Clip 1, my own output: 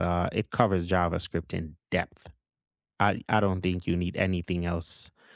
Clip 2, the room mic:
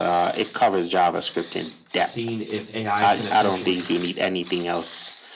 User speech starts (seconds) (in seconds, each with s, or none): 2.0 s